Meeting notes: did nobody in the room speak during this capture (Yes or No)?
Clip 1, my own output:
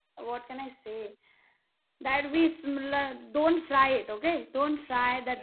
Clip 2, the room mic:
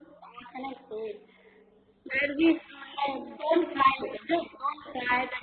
Yes